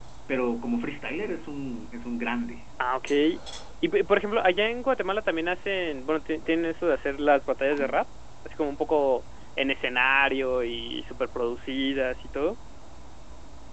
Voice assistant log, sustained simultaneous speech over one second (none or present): none